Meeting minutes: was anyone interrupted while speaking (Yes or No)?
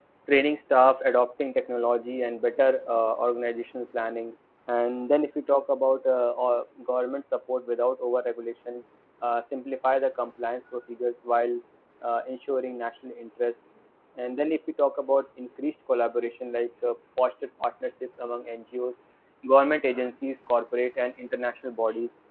No